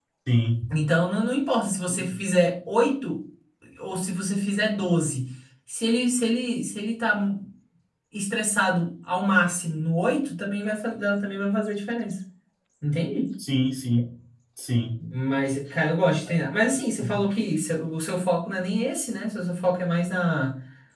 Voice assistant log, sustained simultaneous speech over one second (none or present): none